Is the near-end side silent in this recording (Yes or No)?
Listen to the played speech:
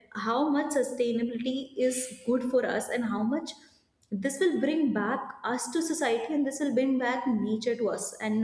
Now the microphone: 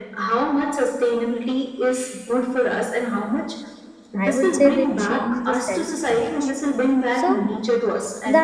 No